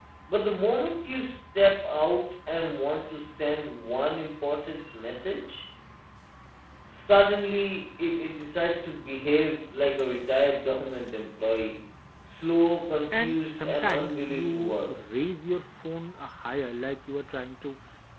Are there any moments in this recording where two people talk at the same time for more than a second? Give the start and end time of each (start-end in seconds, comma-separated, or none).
13.1-14.9